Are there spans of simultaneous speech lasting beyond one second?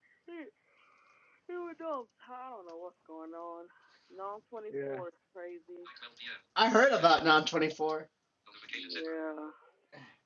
No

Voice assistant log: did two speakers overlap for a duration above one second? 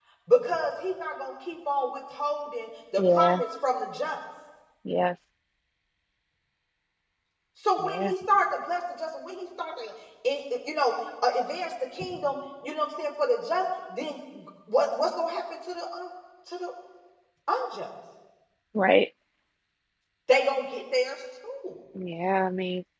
No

